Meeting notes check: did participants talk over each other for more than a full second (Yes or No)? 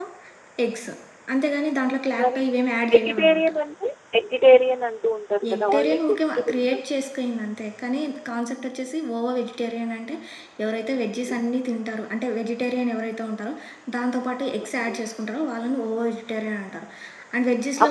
Yes